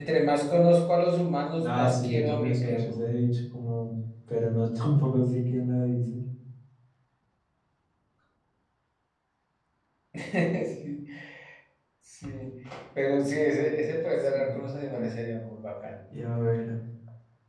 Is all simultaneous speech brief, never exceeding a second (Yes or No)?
No